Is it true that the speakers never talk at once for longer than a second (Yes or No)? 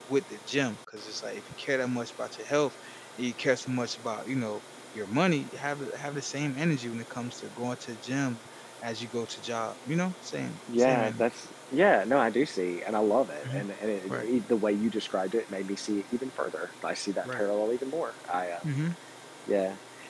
Yes